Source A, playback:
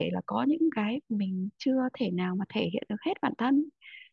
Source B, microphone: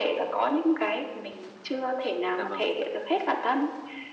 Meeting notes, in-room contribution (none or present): present